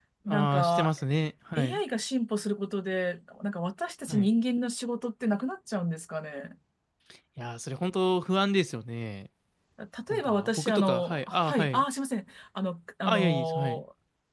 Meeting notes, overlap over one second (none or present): present